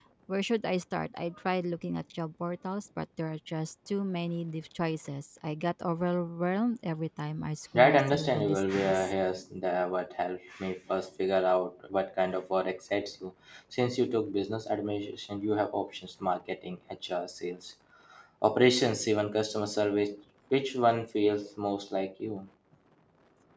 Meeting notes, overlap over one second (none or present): present